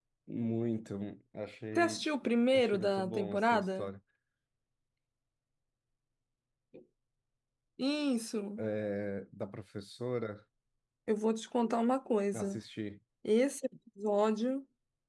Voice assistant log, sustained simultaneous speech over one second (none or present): present